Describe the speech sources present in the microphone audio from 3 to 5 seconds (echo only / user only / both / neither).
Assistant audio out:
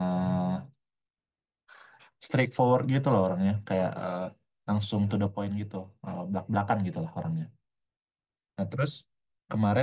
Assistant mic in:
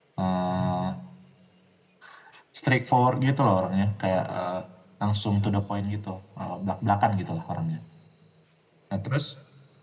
echo only